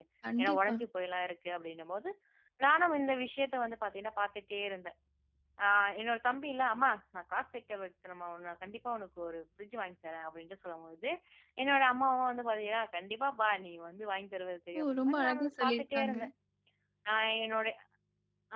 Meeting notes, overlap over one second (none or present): present